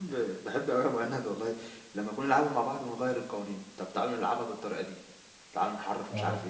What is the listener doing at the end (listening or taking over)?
taking over